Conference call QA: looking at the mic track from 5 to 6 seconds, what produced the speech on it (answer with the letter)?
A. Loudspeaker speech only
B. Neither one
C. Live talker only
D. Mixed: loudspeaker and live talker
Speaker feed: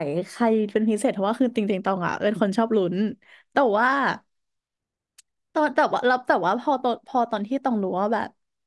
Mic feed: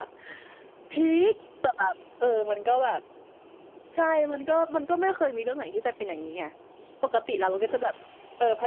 C